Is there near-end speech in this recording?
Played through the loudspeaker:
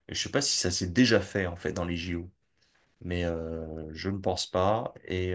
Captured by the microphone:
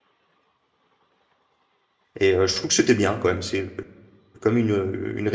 Yes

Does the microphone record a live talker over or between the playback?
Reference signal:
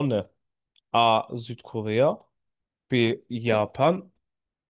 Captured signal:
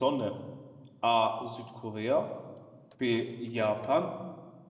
No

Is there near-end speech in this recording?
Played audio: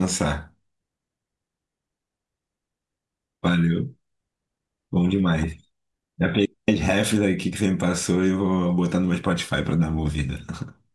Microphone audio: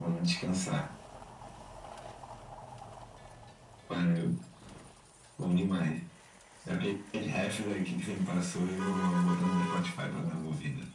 No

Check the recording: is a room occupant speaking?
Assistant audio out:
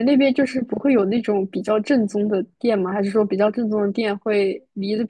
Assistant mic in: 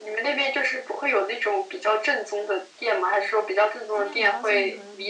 Yes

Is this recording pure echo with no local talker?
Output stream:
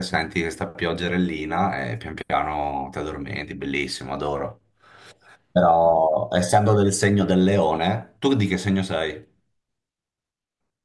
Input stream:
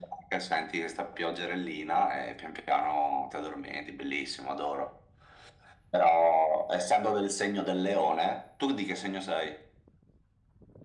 Yes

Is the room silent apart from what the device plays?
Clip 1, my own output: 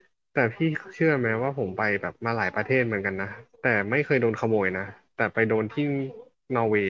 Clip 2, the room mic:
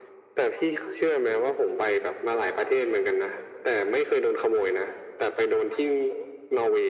Yes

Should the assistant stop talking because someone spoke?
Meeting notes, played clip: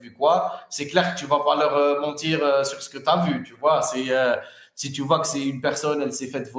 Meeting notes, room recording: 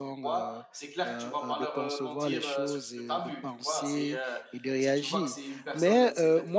Yes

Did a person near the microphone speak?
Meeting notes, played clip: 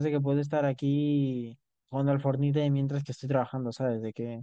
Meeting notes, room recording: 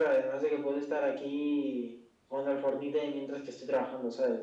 No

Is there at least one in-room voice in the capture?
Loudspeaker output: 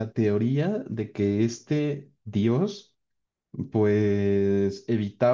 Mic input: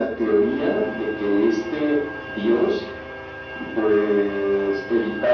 No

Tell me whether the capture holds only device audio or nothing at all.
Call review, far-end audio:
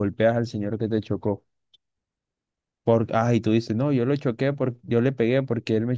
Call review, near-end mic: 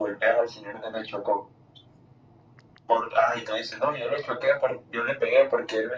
Yes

